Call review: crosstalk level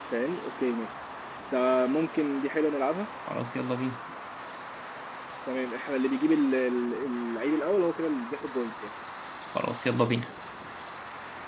none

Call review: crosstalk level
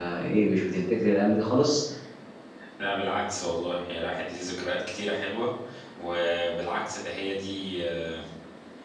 none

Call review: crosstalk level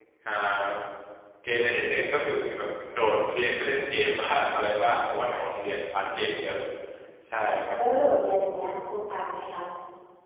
none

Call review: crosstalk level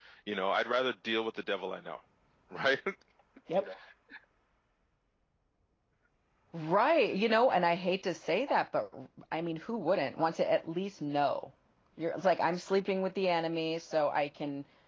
none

